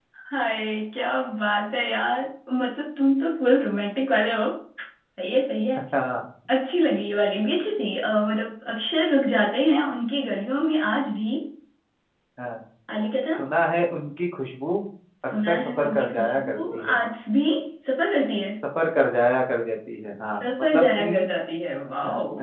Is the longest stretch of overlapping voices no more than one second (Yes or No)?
No